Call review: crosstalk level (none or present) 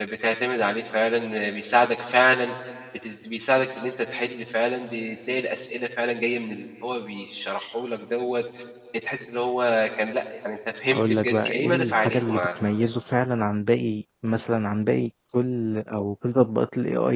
present